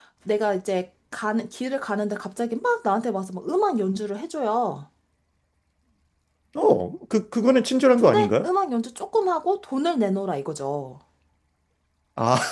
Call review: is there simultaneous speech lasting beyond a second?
No

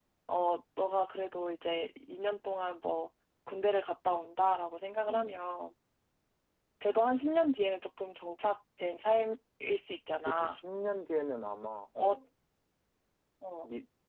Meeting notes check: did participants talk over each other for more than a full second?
No

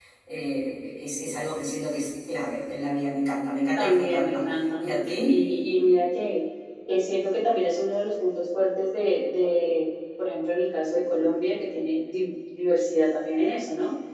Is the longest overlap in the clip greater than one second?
Yes, from 3.8 s

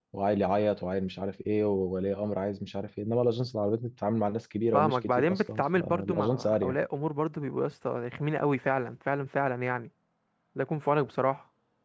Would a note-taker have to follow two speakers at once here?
Yes, from 4.7 s

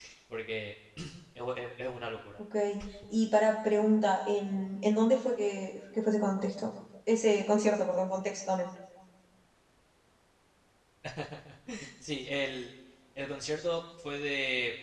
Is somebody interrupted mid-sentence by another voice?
No

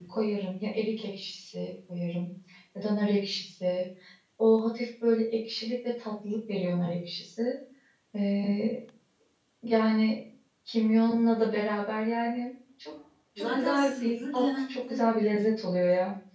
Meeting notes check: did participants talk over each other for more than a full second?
Yes, from 13.4 s

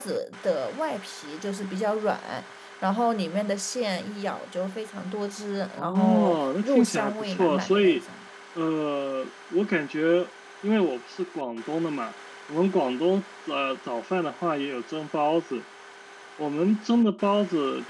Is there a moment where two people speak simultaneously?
Yes, from 5.8 s

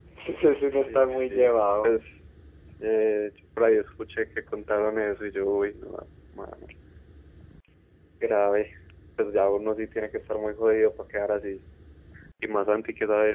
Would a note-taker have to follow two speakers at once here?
Yes, from 0.6 s

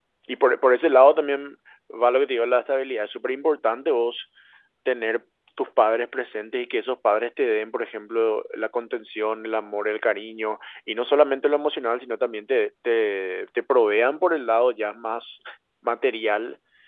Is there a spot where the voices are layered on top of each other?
No

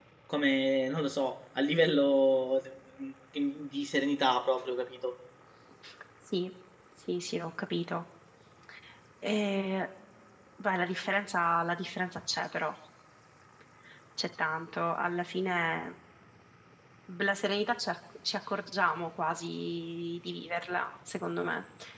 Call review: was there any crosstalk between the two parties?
No

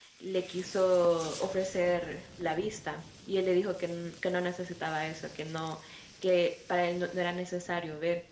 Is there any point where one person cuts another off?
No

